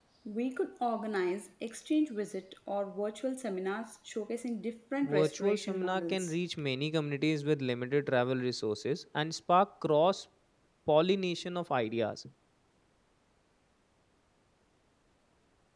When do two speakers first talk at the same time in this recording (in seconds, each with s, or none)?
5.0 s